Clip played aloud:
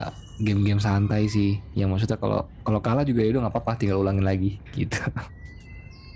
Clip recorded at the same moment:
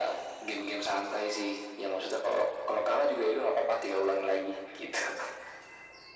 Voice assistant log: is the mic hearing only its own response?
Yes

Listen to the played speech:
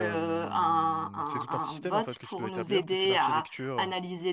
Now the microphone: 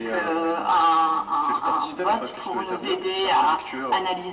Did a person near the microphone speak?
No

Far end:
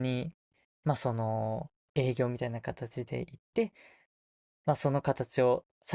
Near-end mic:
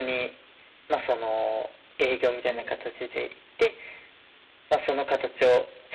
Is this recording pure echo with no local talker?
No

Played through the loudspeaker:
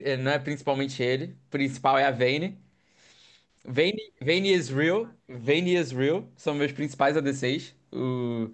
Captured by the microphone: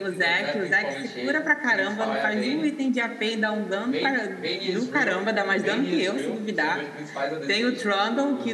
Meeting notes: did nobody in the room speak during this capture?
No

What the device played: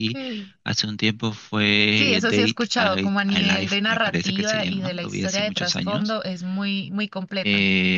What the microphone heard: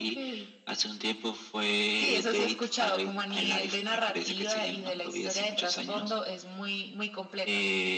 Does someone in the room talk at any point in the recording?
No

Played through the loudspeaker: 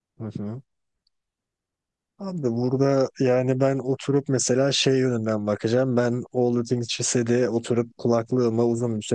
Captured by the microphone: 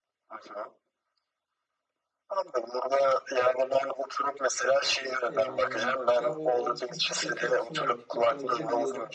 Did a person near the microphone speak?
Yes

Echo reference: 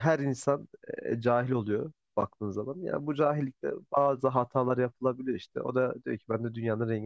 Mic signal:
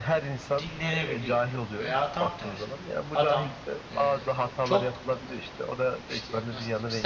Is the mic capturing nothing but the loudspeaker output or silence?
No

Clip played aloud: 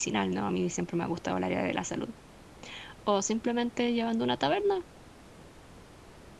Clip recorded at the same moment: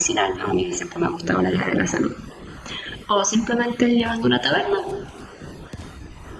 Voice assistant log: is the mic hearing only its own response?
Yes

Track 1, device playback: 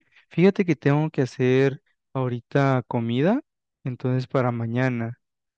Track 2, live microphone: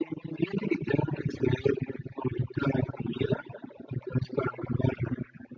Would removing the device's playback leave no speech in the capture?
Yes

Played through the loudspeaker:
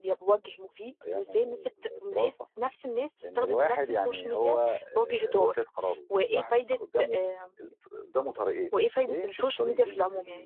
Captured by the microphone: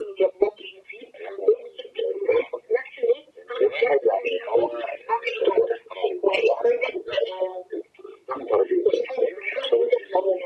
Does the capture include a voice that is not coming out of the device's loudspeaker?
No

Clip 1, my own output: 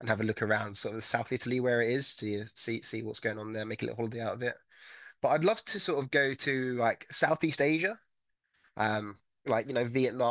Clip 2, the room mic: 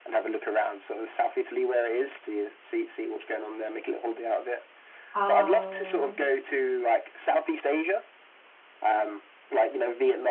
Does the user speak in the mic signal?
Yes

